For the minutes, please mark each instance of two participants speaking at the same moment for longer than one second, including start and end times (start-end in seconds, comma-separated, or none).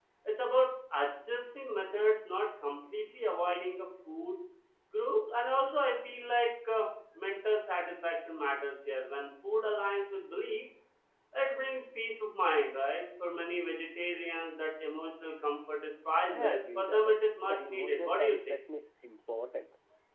16.3-18.5